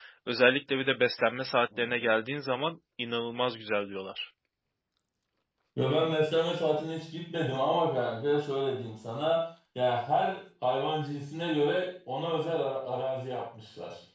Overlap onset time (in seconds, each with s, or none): none